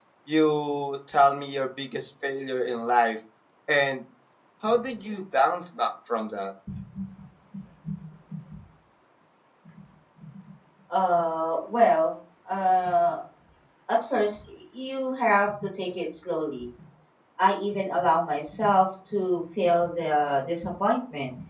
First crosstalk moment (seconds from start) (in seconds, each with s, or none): none